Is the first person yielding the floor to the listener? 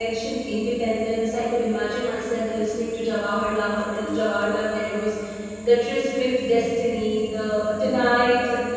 No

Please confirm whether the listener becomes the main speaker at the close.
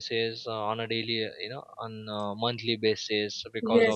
Yes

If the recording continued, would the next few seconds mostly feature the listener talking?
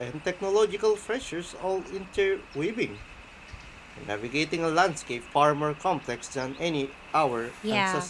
Yes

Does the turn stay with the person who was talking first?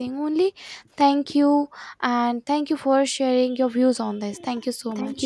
No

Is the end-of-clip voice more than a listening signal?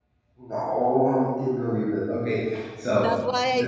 Yes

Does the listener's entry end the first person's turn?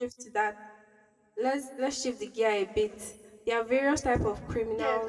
Yes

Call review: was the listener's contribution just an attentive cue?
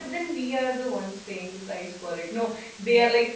Yes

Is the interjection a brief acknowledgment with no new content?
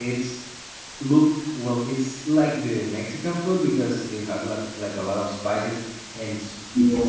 Yes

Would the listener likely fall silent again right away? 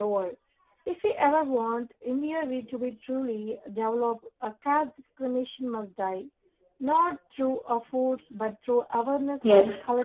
No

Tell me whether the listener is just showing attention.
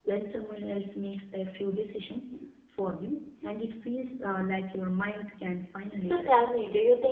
No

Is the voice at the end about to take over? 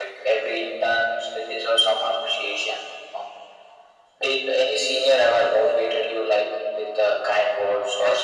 Yes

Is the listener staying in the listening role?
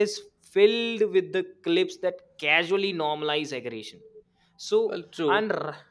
Yes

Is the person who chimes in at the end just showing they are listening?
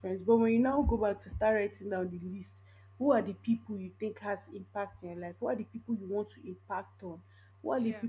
Yes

